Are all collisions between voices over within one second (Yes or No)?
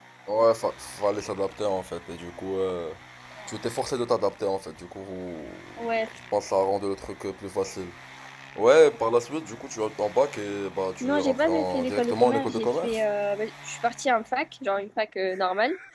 No